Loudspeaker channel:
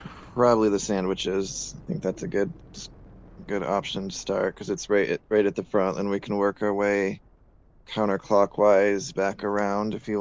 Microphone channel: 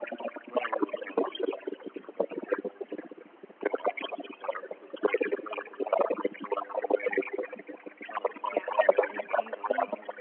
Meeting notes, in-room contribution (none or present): present